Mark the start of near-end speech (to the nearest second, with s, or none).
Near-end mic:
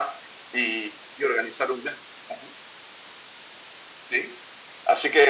none